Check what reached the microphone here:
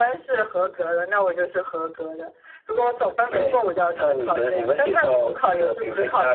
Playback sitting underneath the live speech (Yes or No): No